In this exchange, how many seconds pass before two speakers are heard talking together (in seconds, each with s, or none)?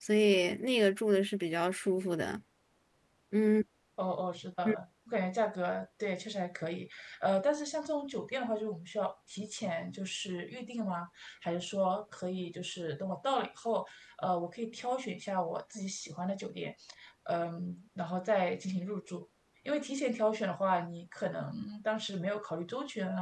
none